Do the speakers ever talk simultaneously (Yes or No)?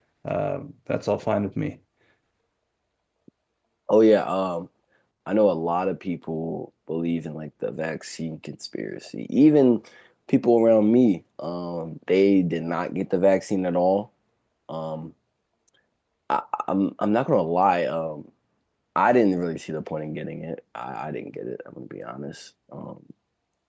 No